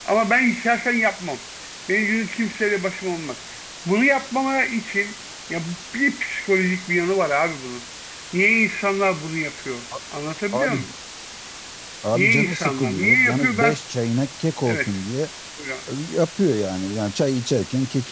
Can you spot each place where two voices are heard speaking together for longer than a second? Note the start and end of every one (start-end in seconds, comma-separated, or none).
12.1-13.8